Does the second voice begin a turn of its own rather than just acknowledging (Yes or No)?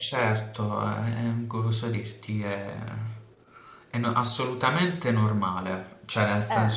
No